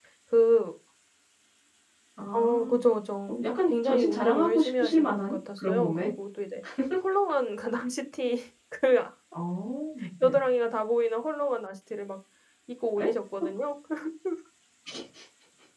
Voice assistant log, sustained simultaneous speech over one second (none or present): present